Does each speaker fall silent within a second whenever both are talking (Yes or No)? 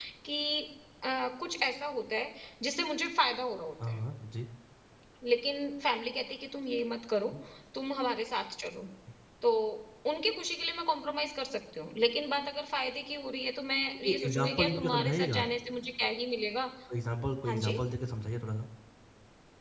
No